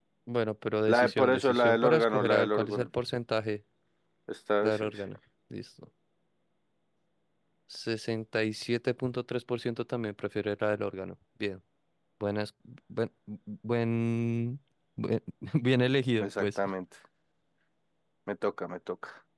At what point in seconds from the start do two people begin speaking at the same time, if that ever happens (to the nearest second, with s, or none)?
1 s